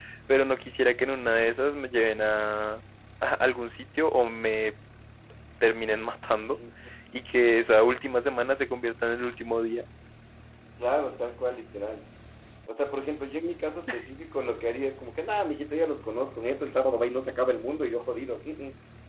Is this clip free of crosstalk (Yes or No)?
Yes